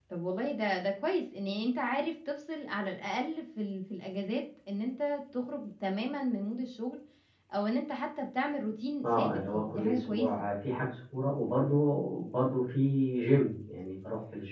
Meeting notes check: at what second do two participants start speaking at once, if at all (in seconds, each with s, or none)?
9.0 s